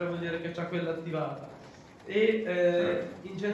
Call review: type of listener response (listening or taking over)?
listening